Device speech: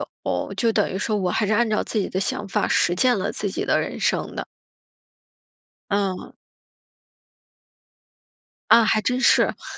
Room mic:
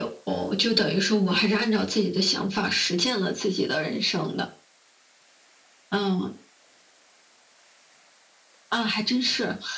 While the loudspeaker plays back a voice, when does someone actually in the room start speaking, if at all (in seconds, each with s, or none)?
none